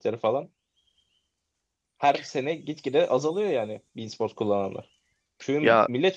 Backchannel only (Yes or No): Yes